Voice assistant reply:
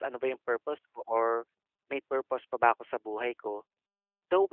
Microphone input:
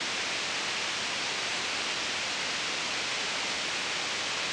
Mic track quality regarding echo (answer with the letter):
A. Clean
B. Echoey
A